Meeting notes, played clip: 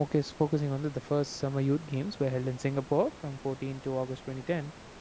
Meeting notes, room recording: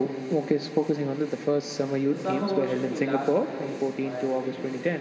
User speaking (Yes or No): Yes